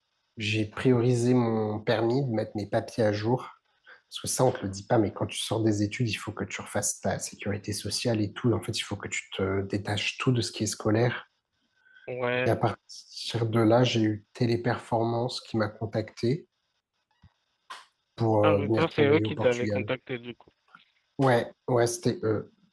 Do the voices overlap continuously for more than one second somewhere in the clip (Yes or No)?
Yes